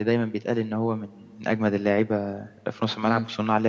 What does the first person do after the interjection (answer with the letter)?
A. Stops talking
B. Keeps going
A